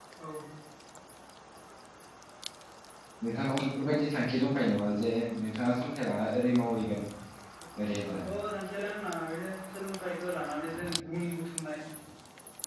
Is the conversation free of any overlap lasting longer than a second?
Yes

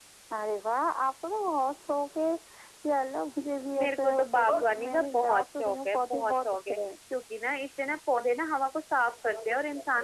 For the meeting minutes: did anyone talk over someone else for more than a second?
Yes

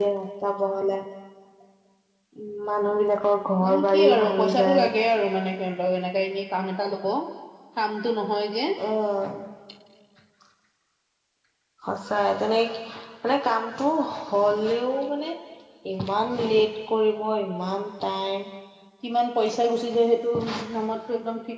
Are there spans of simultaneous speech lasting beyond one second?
Yes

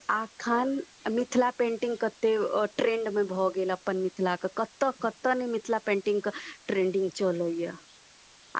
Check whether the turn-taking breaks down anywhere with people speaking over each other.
No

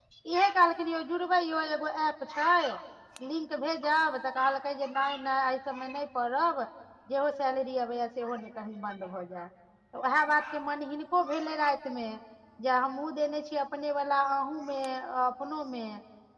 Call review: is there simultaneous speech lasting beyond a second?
No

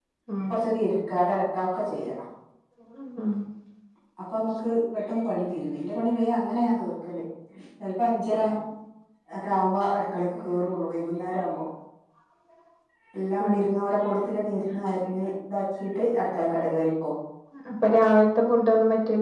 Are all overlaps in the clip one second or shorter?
Yes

